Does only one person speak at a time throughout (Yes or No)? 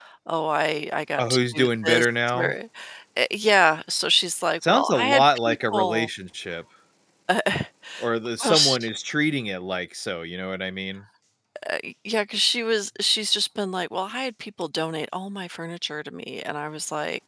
No